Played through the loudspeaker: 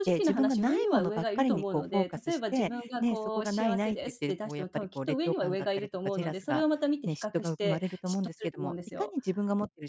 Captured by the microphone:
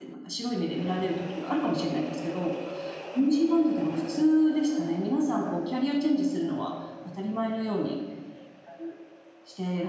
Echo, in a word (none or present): none